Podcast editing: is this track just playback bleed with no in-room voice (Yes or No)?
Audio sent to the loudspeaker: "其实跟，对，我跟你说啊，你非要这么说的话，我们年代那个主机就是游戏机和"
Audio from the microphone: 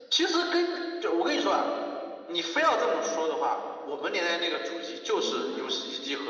No